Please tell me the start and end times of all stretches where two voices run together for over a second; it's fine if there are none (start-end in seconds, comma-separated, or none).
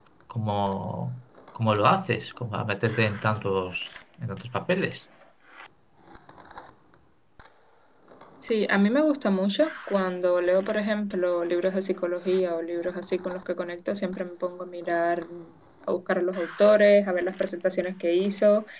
none